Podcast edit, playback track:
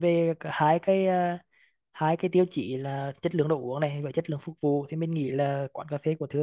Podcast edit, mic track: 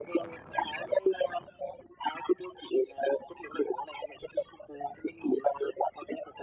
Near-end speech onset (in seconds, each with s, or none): none